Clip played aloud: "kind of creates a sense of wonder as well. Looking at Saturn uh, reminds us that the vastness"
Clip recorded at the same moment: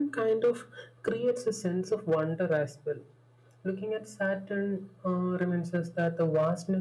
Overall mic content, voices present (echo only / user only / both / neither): echo only